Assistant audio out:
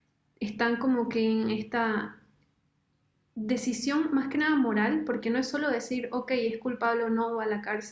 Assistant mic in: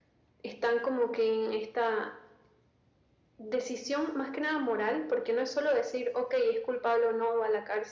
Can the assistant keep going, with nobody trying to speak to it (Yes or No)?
Yes